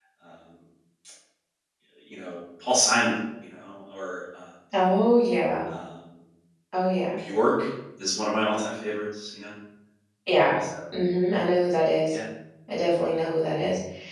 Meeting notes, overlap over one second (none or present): none